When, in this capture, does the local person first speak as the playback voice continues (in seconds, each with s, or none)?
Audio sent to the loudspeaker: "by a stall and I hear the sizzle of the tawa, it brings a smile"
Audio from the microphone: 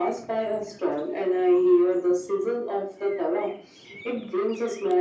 none